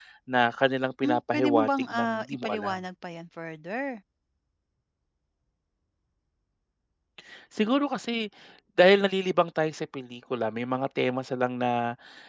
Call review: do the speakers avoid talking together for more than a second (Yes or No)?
No